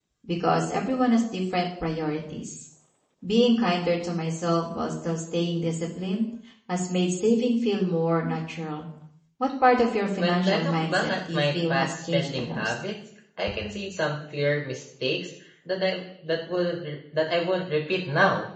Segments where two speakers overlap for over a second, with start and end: 10.2-12.7

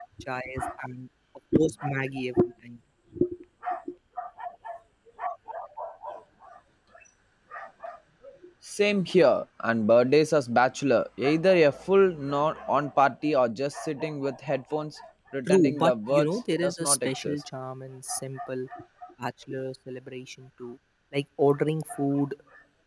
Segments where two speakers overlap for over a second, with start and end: 15.5-17.4

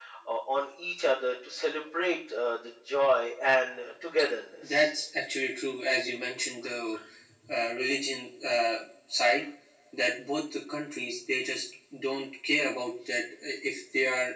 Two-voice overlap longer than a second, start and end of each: none

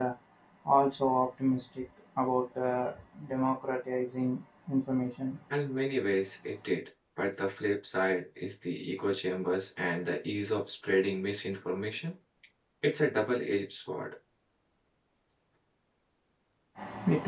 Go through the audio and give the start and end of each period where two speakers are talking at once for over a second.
none

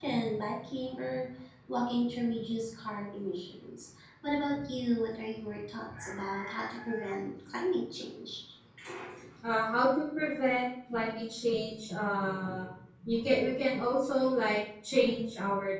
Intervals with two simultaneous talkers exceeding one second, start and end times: none

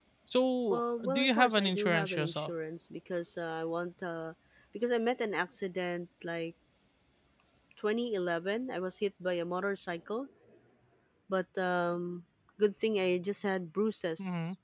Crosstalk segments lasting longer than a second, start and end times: 0.7-2.5

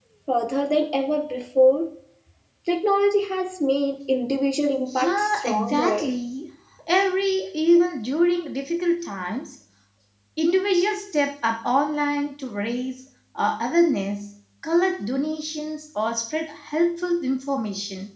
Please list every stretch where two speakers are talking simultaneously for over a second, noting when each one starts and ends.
4.9-6.2

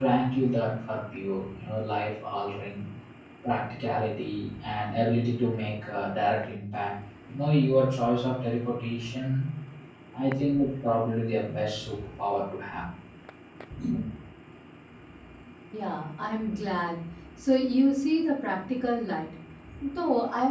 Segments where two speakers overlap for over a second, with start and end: none

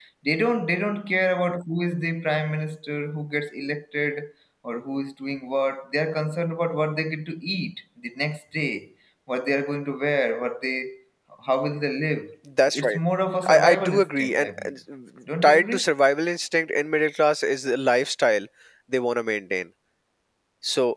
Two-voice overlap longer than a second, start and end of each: 13.5-14.7

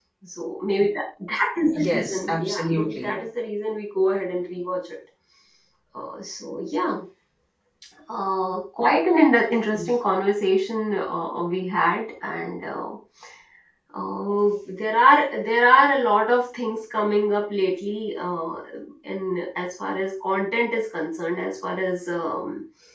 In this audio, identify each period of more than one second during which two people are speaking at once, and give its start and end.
1.7-3.2

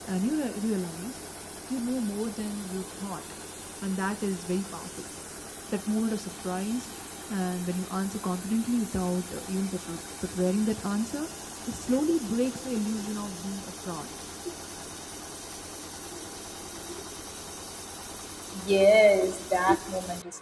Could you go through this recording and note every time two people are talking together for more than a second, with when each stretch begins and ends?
none

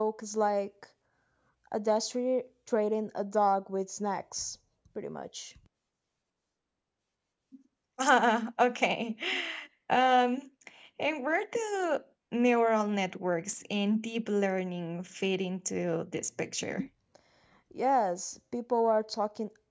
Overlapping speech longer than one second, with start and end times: none

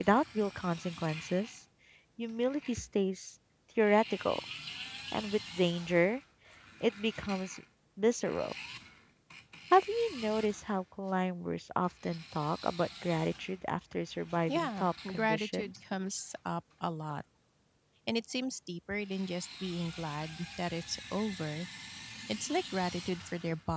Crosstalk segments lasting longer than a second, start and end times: 14.5-15.7

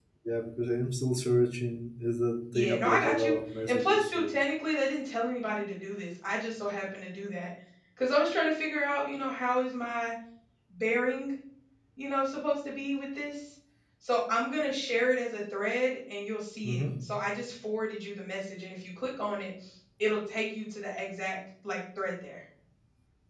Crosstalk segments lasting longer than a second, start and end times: 2.6-4.4

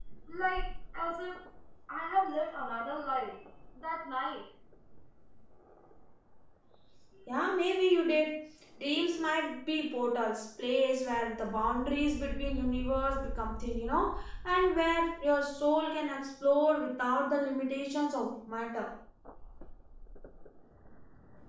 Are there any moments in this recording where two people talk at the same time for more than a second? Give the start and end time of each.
none

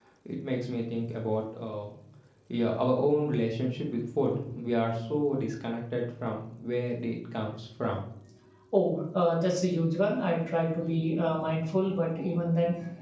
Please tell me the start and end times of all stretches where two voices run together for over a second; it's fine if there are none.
none

